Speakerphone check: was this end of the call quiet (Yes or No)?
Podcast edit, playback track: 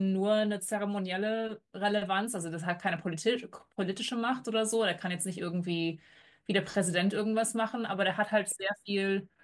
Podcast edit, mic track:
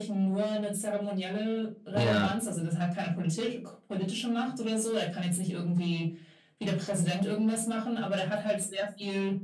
No